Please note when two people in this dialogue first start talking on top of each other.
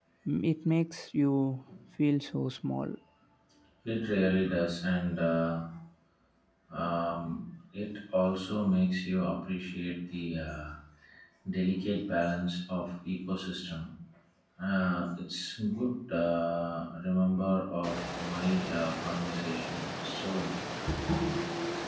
none

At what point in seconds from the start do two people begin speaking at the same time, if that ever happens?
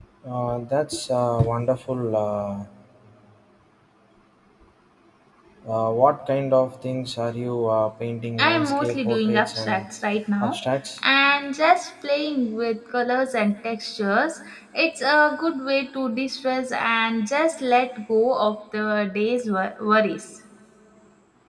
8.4 s

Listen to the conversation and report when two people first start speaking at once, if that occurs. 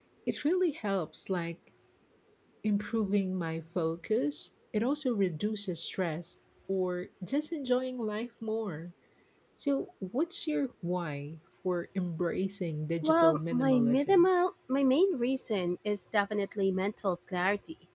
13.0 s

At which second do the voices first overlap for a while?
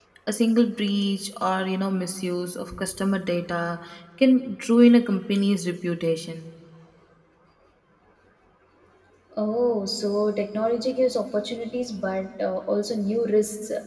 none

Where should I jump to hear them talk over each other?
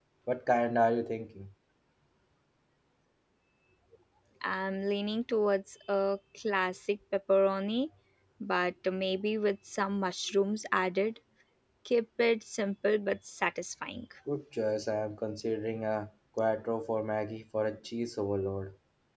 none

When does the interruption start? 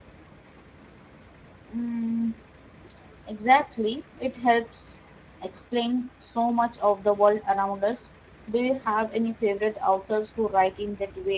none

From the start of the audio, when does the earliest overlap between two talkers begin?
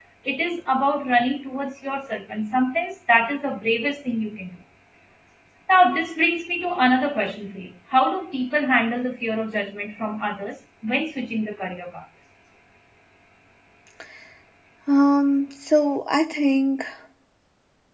none

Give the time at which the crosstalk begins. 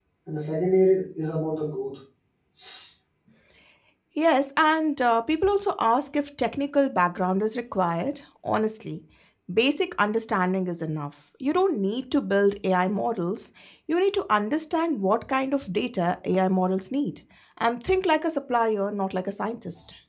none

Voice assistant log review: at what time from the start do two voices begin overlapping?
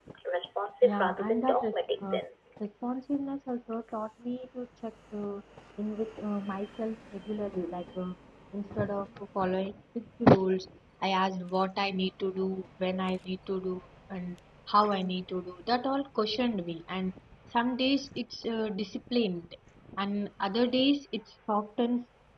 0.8 s

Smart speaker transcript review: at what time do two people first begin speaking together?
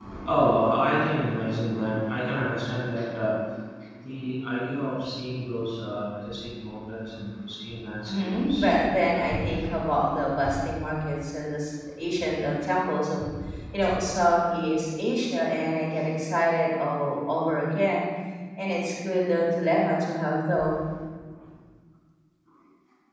8.1 s

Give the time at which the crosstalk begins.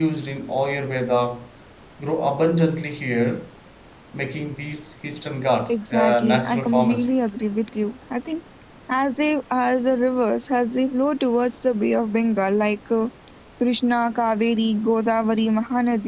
5.7 s

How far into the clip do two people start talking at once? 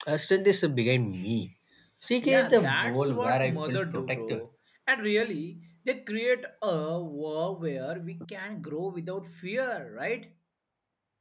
2.2 s

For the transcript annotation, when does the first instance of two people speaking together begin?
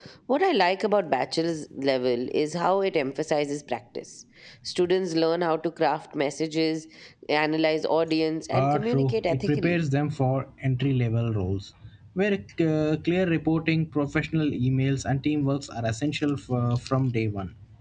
8.5 s

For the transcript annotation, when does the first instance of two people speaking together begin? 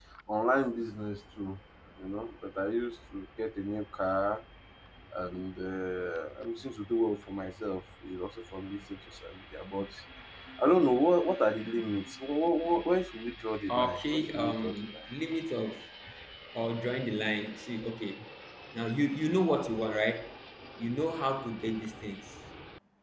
13.7 s

